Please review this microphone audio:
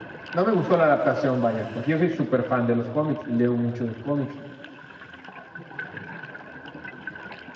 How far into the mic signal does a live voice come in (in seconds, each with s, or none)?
0.3 s